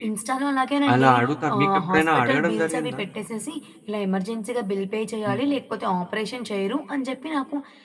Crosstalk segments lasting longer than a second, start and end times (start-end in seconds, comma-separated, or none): 1.5-3.0